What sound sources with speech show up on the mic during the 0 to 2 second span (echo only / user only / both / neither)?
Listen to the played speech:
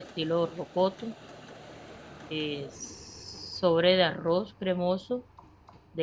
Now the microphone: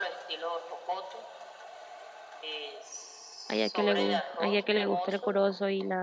echo only